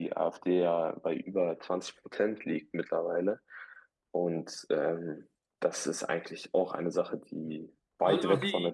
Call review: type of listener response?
taking over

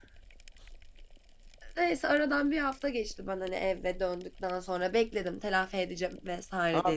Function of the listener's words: taking over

